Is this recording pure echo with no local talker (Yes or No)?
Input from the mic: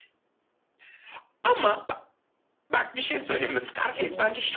No